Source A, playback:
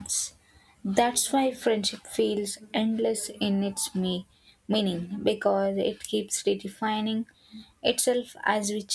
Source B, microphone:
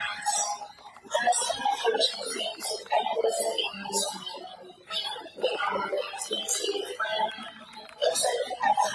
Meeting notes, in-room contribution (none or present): none